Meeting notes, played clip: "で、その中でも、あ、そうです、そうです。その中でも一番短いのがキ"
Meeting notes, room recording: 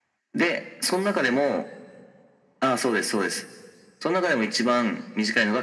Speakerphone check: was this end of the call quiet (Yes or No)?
Yes